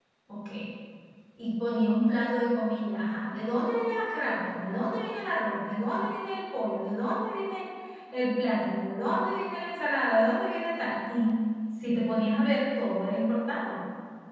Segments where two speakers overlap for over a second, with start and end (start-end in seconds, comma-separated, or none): none